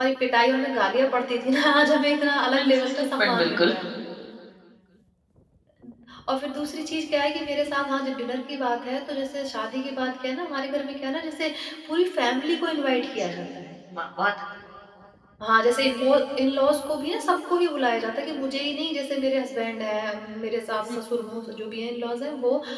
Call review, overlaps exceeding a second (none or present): present